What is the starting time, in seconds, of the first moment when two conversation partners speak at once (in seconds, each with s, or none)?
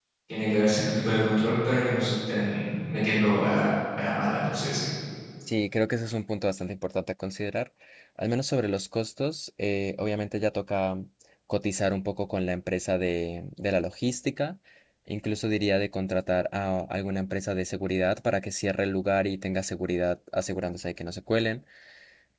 none